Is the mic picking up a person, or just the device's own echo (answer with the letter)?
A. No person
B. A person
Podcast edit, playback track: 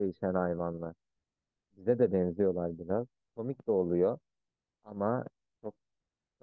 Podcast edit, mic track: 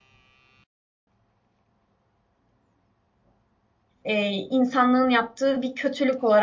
B